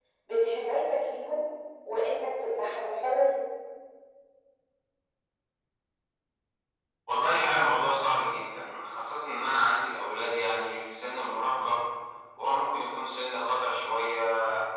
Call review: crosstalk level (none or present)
none